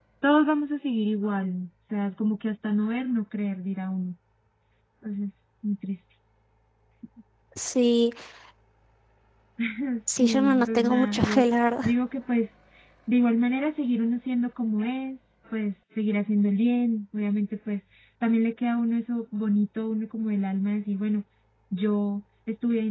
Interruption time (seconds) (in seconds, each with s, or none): 10.2 s